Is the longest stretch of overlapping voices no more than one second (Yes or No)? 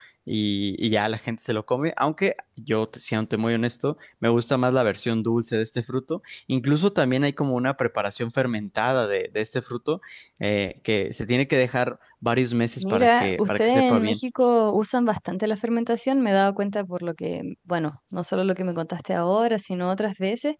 No